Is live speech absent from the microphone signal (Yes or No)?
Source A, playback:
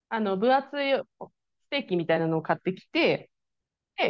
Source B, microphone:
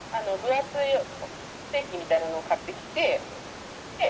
Yes